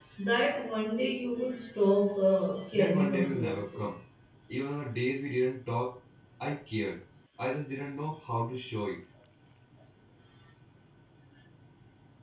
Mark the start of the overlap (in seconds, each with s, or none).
2.7 s